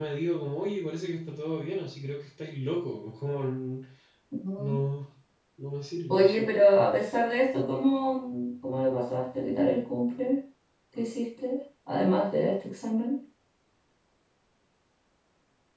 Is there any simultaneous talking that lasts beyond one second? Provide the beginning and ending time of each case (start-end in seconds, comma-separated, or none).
none